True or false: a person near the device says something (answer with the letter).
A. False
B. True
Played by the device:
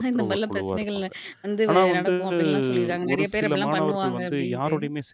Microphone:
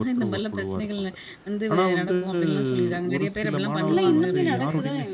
B